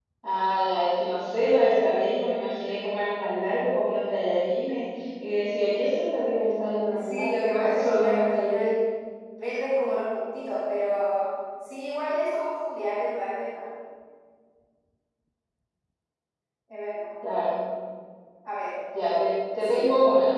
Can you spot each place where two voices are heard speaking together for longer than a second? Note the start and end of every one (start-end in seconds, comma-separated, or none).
6.9-8.7